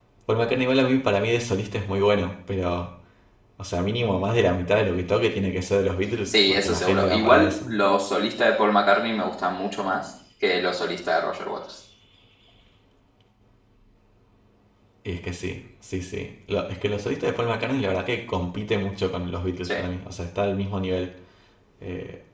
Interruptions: present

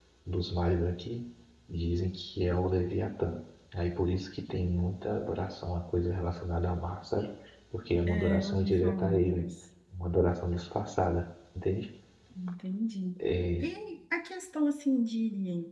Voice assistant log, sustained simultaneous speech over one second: present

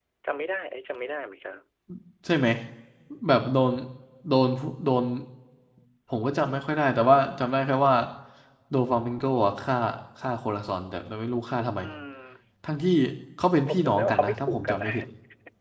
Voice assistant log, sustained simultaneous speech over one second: present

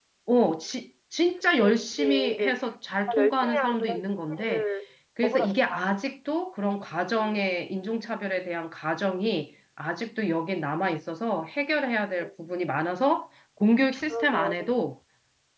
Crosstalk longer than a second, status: present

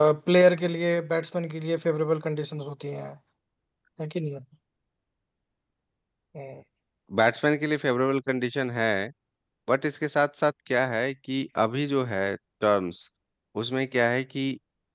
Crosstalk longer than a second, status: none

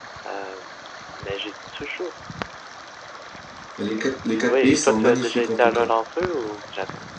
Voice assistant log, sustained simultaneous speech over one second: present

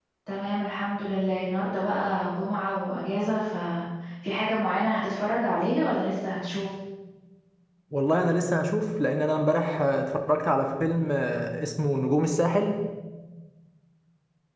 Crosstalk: none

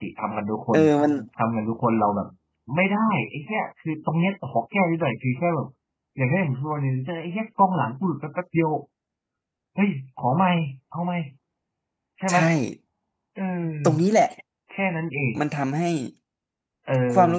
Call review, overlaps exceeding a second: none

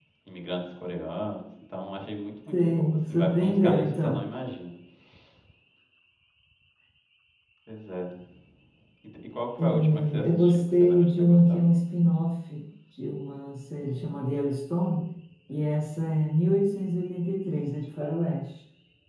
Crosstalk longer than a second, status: present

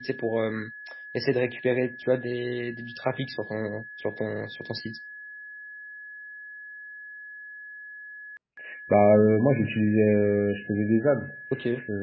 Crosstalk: none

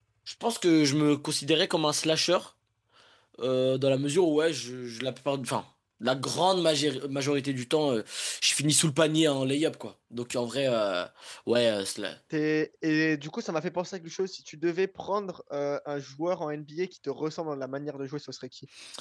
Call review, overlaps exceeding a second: none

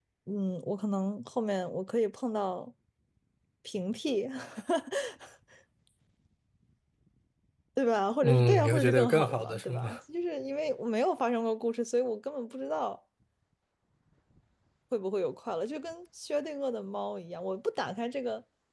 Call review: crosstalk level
present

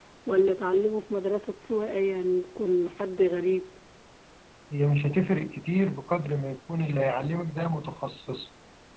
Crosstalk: none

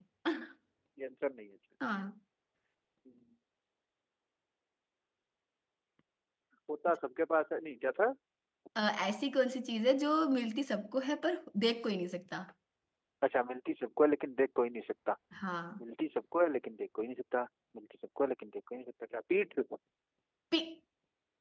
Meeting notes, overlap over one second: none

